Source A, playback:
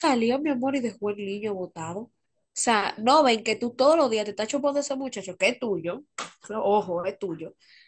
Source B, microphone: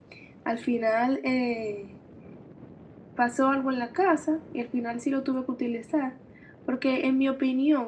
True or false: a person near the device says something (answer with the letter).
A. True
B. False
A